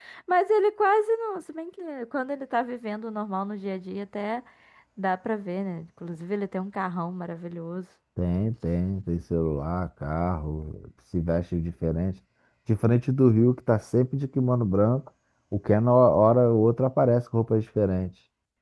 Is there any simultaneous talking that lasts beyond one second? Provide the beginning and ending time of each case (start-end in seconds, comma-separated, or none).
none